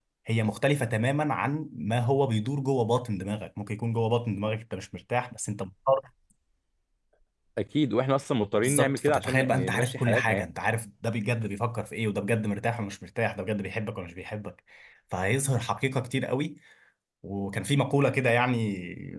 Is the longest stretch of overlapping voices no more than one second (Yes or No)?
No